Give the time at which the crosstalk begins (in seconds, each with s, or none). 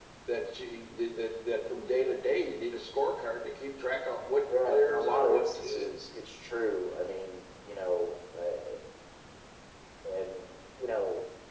4.5 s